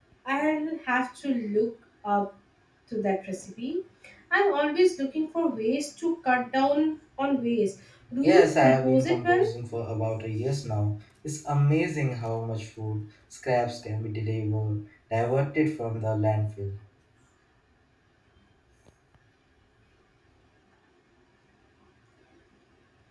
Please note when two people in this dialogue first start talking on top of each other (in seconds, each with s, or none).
8.2 s